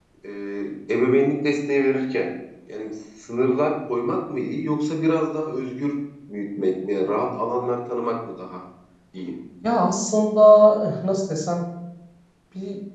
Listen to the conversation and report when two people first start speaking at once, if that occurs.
none

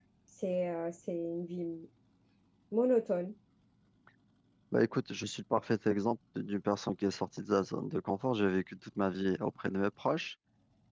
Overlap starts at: none

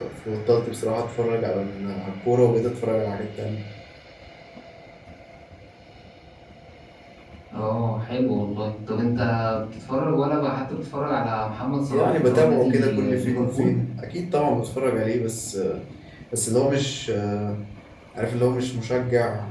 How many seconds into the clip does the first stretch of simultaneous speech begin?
11.9 s

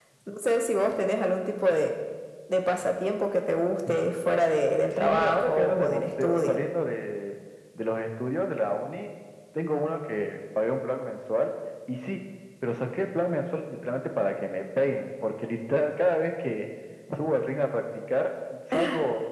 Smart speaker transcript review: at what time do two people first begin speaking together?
4.9 s

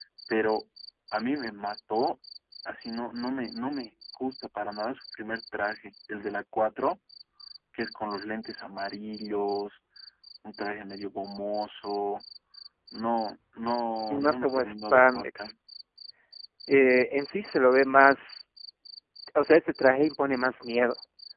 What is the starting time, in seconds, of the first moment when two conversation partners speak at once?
14.1 s

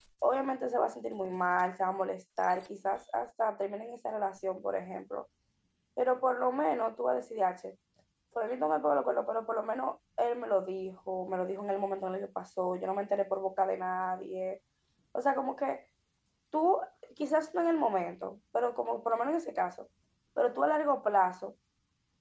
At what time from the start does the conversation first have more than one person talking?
none

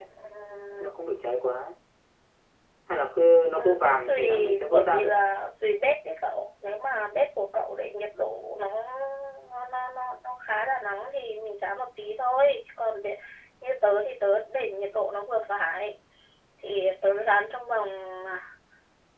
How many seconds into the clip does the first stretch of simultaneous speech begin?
3.5 s

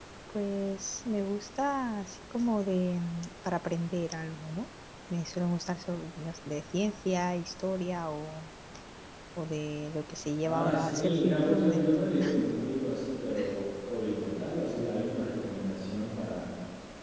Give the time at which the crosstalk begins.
10.4 s

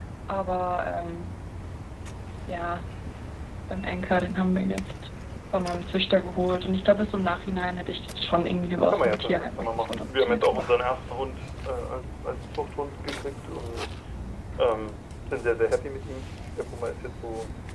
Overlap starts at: 8.9 s

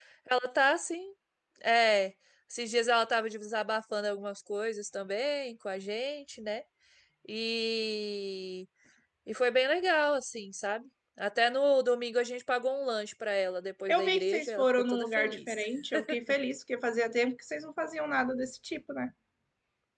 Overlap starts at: 13.9 s

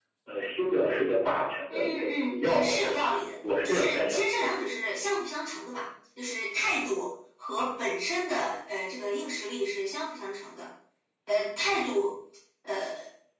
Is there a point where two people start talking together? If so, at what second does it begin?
1.7 s

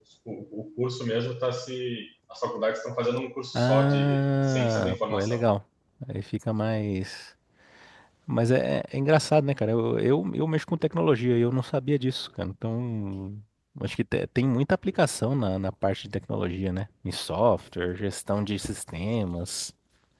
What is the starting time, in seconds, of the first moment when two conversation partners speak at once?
3.5 s

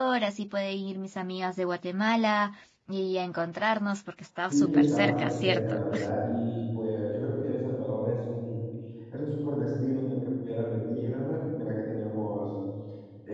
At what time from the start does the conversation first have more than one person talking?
4.5 s

